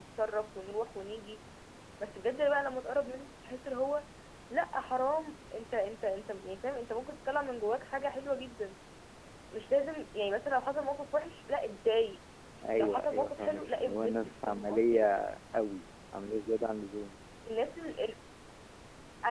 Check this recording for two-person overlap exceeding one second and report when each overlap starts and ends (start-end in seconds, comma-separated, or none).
12.8-15.0